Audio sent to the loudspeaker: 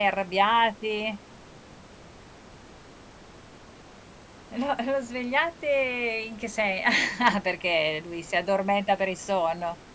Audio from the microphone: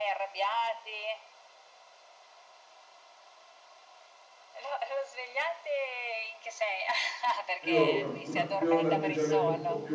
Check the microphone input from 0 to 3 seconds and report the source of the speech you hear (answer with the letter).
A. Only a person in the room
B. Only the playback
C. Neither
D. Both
B